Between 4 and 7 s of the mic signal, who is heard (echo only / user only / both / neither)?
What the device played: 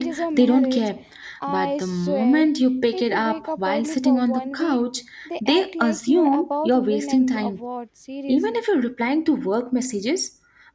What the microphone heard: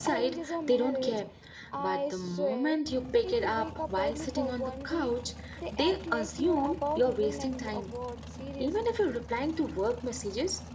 echo only